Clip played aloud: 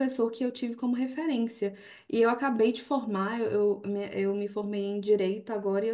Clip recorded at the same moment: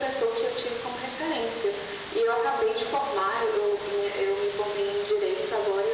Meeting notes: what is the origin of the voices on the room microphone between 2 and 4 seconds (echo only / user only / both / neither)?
echo only